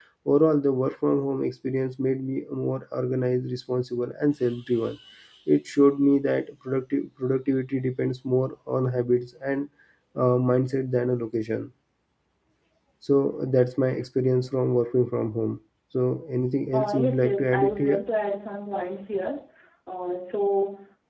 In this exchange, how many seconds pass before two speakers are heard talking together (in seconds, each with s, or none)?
16.7 s